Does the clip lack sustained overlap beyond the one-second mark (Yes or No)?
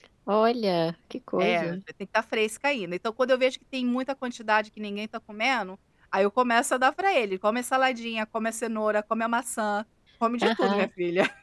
Yes